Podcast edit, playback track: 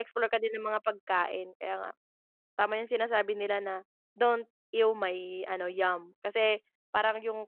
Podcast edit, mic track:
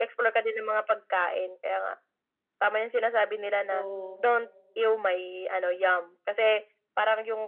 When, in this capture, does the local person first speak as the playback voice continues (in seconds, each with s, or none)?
3.6 s